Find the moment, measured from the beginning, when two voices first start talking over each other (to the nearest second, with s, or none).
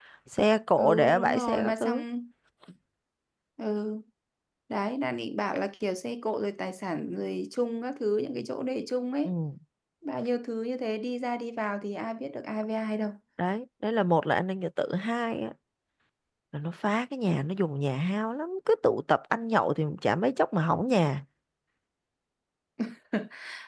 1 s